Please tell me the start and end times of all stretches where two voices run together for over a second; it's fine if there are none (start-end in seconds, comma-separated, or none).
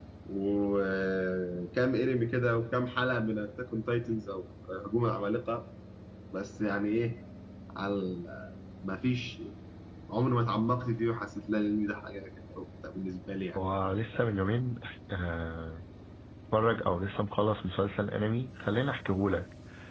none